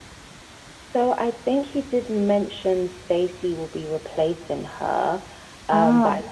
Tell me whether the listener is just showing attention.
Yes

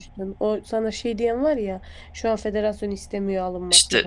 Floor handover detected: Yes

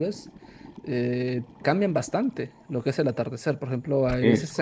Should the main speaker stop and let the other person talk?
No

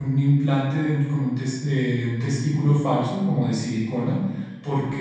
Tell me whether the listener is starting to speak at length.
No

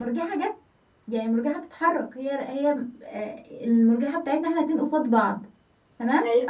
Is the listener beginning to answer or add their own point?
No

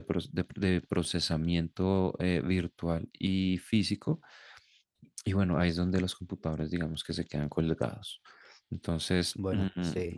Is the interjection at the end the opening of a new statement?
No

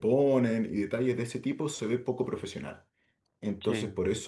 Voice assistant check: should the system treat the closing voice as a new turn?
No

